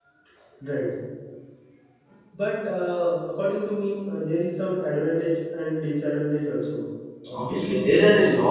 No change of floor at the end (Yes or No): No